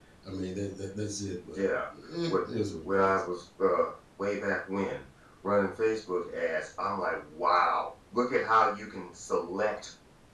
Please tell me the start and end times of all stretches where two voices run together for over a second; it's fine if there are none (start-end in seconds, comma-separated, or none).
none